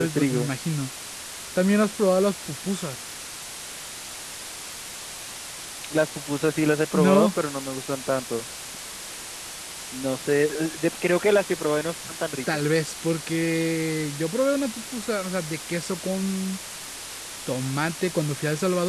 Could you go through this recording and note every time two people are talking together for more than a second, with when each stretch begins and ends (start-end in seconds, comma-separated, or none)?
none